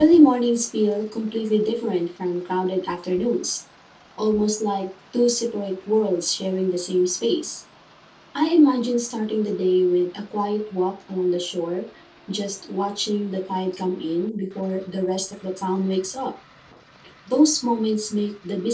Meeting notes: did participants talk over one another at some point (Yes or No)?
No